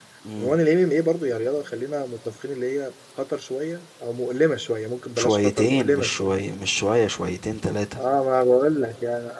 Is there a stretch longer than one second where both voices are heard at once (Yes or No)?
Yes